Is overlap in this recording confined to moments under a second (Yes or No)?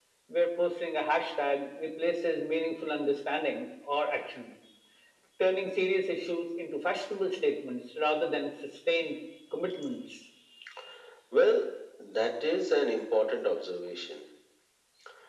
Yes